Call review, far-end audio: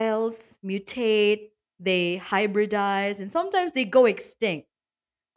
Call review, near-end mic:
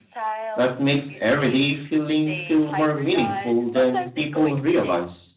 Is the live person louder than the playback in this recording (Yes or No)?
Yes